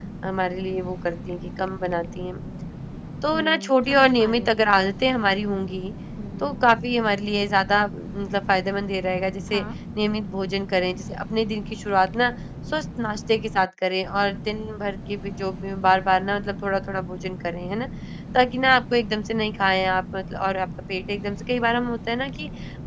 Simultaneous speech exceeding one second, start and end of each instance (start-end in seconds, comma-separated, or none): 3.3-4.5